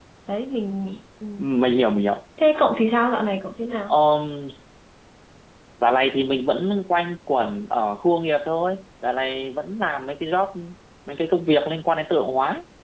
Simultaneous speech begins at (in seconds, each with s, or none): none